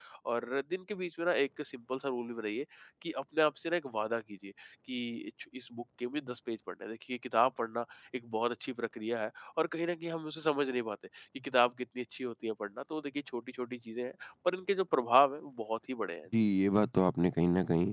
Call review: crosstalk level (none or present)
none